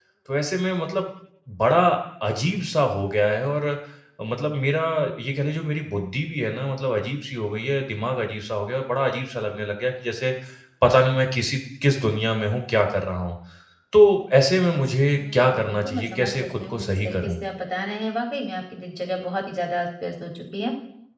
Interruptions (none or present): present